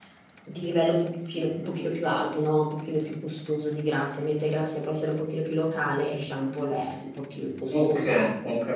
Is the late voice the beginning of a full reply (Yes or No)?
Yes